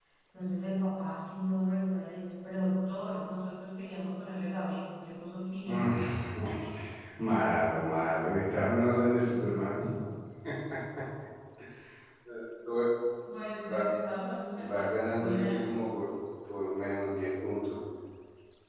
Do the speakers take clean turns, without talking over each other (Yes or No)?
No